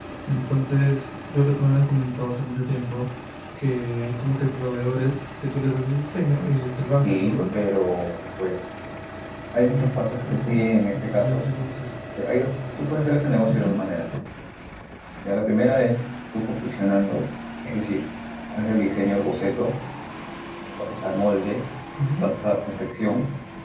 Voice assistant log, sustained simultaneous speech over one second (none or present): none